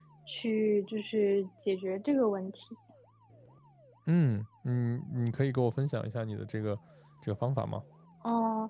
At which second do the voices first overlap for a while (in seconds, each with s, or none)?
none